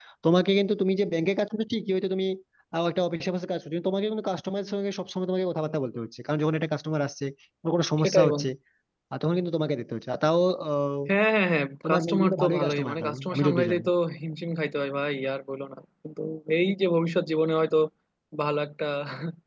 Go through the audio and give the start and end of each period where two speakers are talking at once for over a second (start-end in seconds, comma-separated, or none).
11.8-13.8